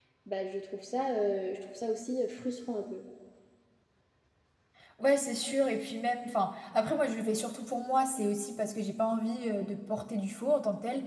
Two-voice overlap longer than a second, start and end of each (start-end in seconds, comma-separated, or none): none